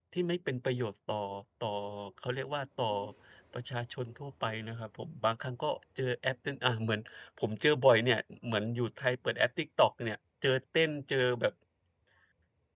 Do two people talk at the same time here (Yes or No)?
No